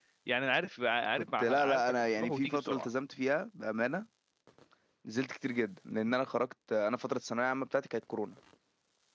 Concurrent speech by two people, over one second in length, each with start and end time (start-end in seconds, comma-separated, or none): 1.1-2.9